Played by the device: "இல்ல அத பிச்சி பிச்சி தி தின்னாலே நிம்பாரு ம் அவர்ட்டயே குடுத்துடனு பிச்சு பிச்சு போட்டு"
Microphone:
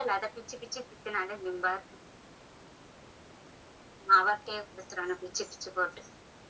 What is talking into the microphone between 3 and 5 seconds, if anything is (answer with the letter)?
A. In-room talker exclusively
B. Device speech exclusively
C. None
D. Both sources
B